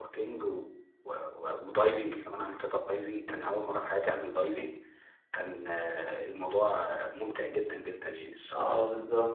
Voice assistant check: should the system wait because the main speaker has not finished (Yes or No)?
No